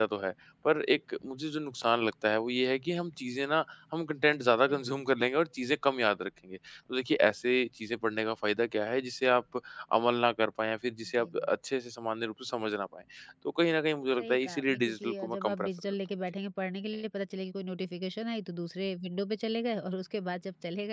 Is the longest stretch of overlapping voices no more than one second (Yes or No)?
No